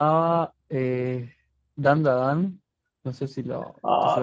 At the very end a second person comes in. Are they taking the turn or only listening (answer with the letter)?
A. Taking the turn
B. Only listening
A